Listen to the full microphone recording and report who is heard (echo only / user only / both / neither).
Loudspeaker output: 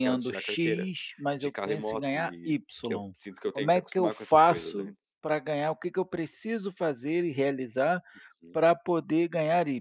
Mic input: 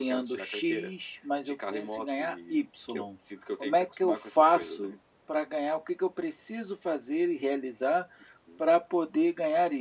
echo only